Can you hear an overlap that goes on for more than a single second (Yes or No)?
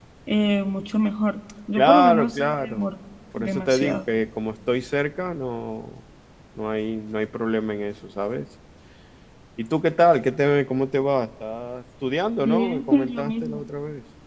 Yes